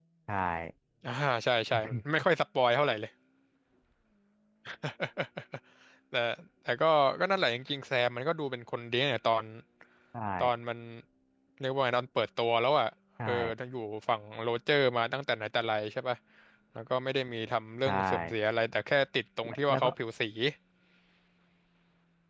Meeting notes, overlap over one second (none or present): none